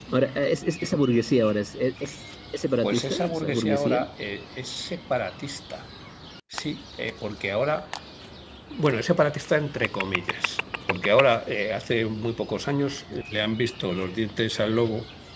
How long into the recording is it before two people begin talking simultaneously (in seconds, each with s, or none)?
2.8 s